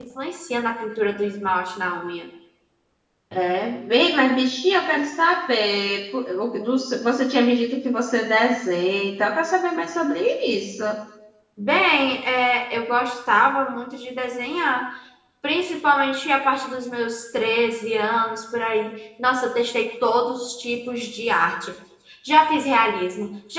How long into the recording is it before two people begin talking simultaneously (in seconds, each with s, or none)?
none